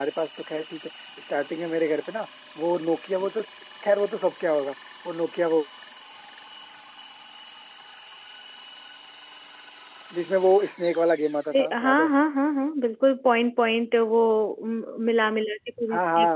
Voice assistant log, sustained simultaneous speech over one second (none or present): none